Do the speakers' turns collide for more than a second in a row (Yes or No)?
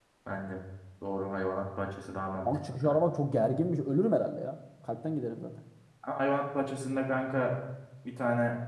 No